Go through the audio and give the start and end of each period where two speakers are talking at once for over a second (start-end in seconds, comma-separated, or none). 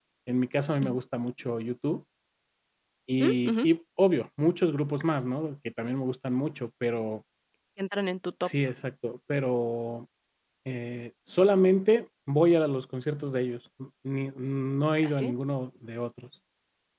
none